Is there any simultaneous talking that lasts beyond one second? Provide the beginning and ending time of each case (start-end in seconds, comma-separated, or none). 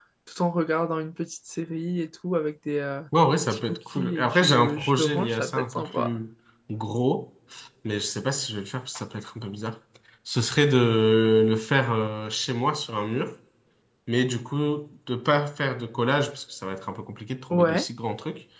3.4-6.2